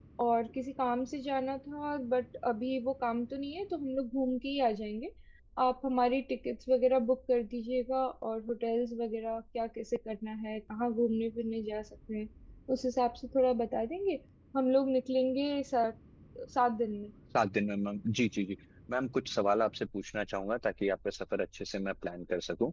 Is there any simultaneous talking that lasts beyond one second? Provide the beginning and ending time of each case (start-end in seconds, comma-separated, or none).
none